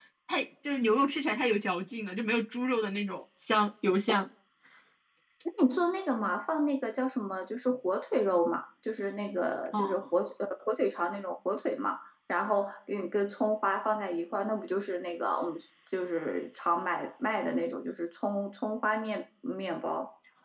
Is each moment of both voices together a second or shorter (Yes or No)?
Yes